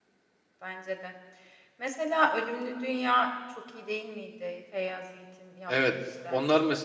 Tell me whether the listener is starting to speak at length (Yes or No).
Yes